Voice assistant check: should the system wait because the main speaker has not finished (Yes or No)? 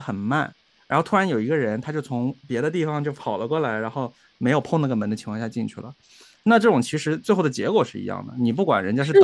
No